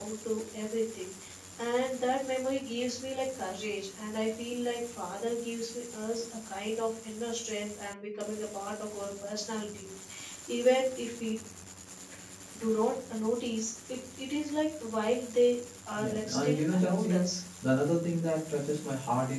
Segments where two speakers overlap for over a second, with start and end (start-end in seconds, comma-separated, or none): 16.0-17.2